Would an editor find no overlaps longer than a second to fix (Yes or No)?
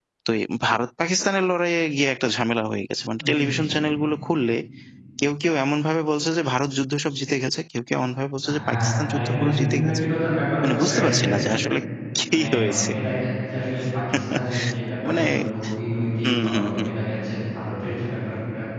No